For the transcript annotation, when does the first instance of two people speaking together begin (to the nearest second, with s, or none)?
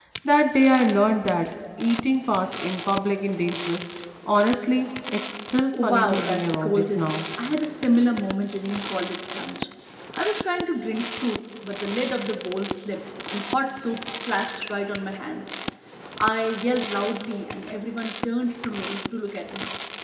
6 s